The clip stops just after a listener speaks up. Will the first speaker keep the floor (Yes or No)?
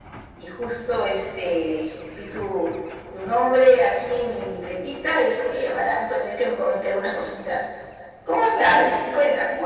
No